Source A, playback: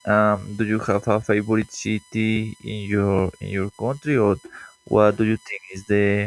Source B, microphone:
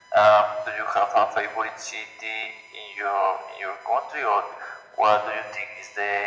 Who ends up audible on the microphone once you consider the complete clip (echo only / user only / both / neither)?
echo only